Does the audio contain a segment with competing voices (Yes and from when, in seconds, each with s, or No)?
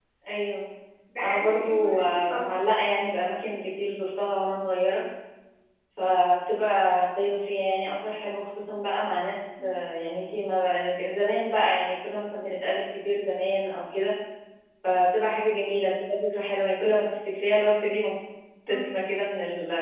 Yes, from 1.2 s